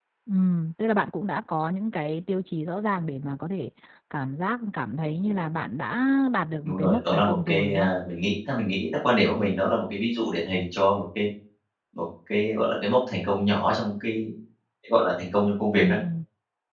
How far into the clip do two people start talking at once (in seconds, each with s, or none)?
6.6 s